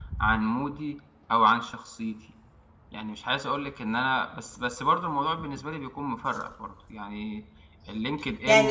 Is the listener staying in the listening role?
No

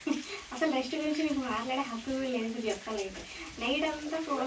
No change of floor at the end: Yes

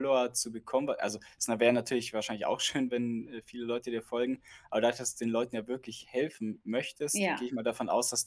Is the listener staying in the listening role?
Yes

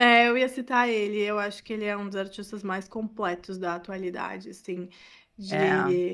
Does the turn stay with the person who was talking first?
Yes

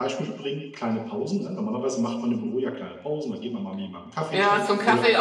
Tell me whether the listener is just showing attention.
No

